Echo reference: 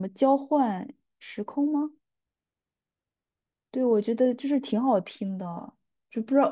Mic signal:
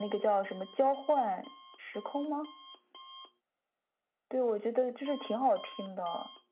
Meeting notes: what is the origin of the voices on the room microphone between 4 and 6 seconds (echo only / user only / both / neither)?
echo only